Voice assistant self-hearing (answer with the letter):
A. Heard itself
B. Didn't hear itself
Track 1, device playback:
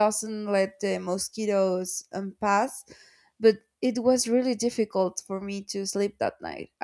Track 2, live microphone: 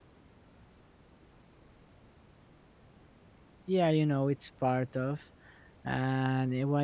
B